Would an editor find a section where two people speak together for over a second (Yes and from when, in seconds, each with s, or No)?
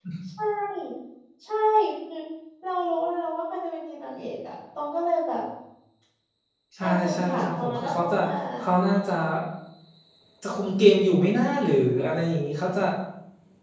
Yes, from 6.8 s